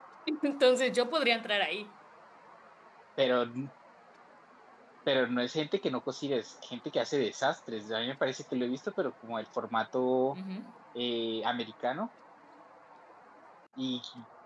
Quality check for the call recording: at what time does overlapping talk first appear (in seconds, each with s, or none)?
none